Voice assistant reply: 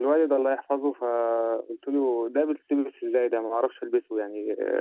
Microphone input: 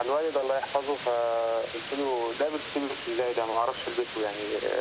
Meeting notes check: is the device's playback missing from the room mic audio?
No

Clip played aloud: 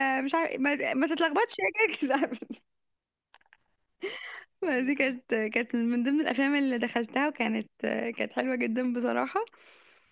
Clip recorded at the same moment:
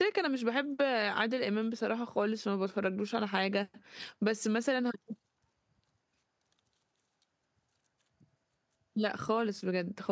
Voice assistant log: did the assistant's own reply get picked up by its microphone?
No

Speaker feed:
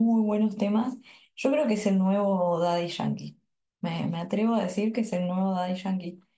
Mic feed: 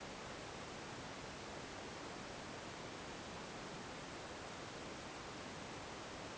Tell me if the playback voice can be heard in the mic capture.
No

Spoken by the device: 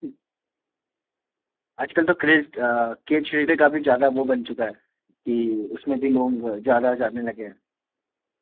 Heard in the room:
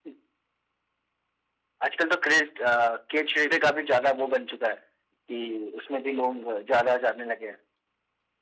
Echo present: Yes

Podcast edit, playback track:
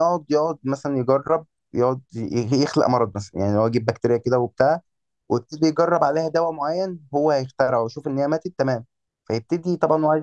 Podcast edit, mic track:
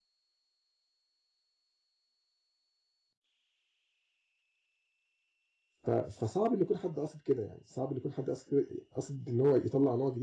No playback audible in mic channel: Yes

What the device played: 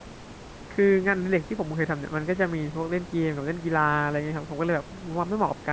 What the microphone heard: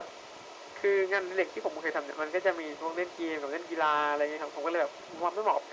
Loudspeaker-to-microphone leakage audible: Yes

